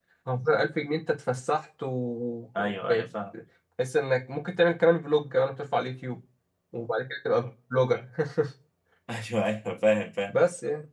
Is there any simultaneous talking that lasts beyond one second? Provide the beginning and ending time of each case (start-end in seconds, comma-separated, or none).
none